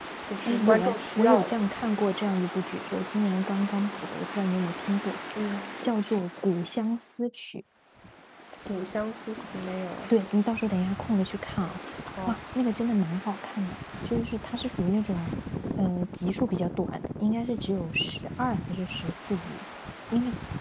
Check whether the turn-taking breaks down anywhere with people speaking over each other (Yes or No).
Yes